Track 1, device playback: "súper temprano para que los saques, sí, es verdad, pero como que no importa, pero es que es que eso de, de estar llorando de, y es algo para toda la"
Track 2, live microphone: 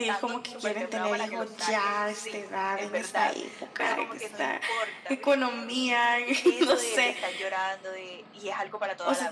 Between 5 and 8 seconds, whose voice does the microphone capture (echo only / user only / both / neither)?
both